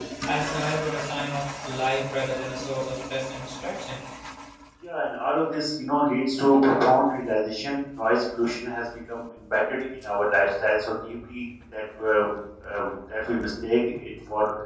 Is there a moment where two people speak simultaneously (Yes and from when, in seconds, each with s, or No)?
No